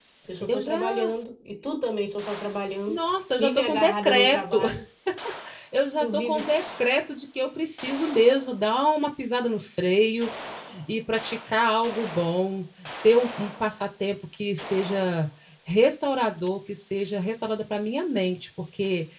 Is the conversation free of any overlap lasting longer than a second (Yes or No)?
No